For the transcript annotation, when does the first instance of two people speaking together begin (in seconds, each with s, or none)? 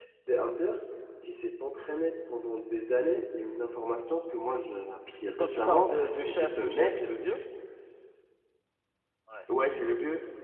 5.3 s